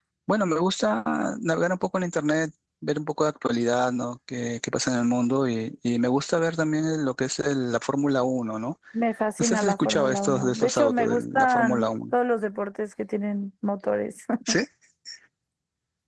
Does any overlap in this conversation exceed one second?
Yes, from 9.4 s

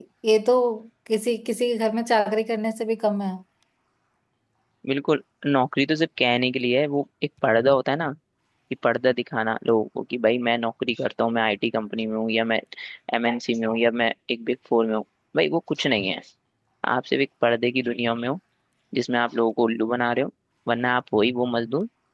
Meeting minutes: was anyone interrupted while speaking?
No

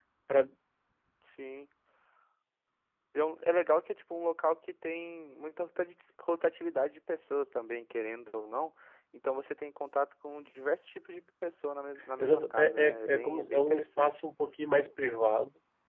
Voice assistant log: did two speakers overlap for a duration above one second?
Yes, from 12.2 s

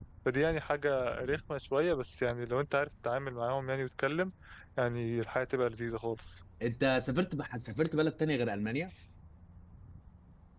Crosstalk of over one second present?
No

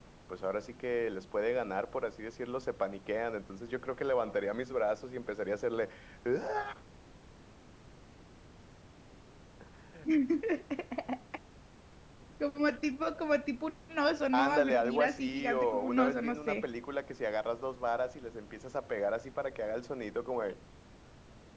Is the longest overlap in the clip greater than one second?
Yes, from 14.3 s

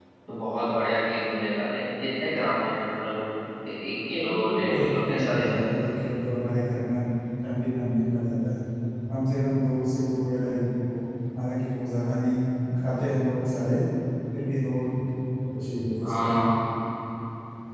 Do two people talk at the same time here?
Yes, from 4.1 s

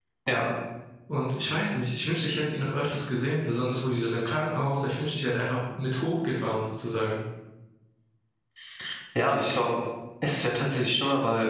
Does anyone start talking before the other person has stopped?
No

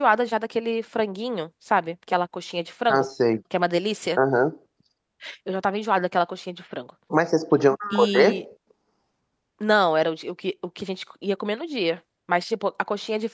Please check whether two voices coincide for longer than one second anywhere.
No

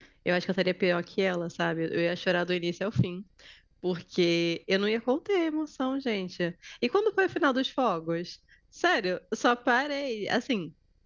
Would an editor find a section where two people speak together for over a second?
No

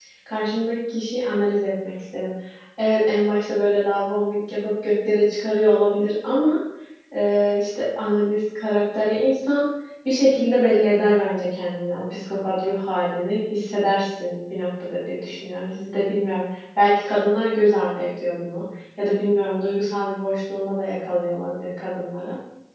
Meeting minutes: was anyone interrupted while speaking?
No

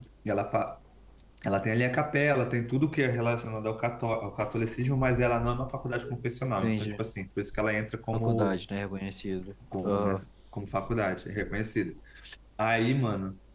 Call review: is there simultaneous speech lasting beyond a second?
No

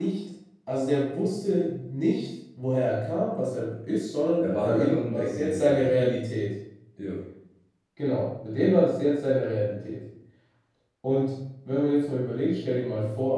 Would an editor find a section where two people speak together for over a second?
Yes, from 4.4 s

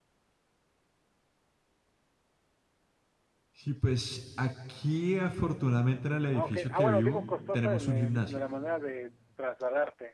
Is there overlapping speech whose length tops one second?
Yes, from 6.3 s

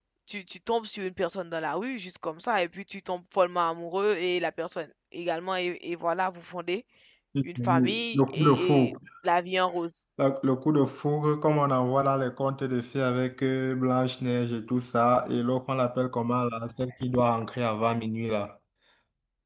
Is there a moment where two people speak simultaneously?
Yes, from 7.4 s

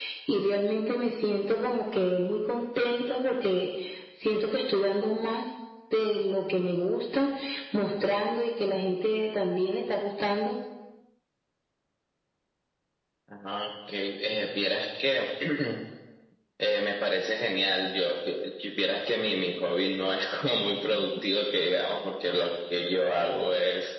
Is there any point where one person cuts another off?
No

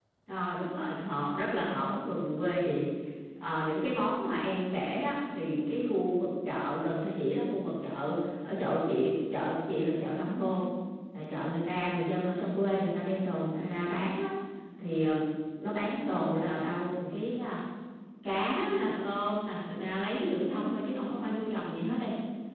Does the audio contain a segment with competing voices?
No

